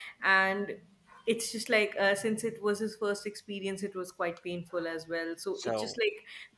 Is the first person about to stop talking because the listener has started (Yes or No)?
No